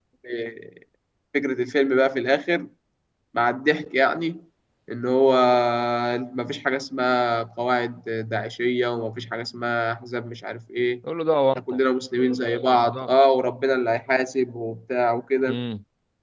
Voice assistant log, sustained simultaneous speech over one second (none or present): none